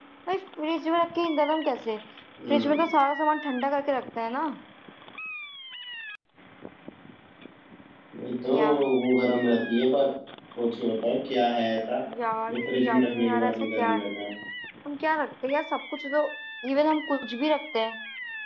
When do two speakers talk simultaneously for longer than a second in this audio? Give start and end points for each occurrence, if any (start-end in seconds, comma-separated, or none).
12.5-14.0